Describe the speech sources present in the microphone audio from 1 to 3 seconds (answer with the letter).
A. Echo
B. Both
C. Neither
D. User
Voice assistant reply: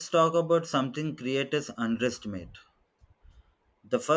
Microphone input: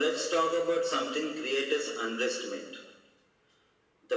A